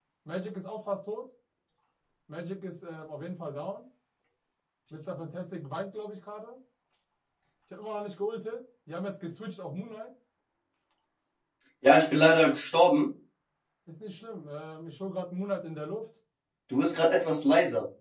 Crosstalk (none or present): none